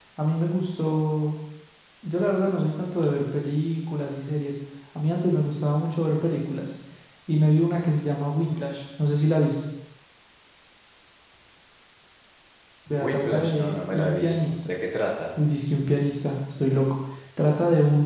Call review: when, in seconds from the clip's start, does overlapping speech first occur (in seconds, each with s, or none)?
13.0 s